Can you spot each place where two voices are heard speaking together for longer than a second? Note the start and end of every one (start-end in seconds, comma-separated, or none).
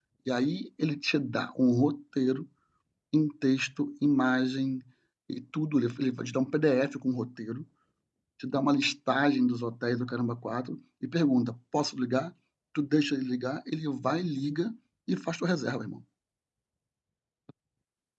none